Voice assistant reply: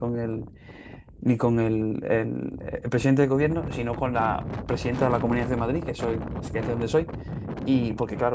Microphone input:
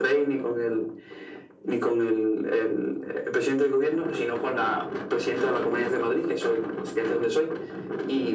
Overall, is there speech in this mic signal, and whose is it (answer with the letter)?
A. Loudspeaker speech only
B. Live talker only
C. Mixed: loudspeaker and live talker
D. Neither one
A